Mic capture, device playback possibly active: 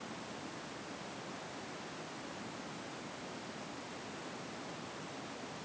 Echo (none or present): none